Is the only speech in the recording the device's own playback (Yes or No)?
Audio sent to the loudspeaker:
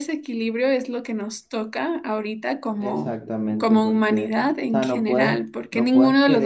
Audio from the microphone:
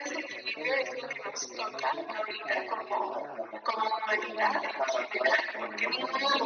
No